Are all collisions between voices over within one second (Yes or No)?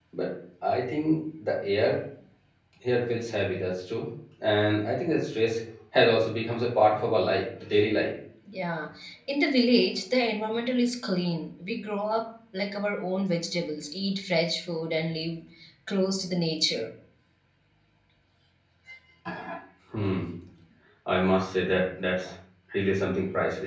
Yes